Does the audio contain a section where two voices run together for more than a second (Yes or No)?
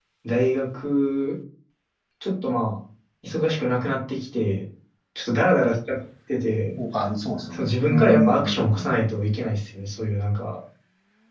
Yes